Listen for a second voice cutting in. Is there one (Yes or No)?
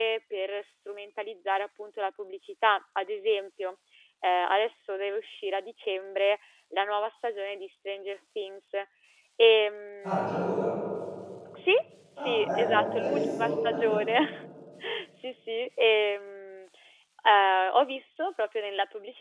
Yes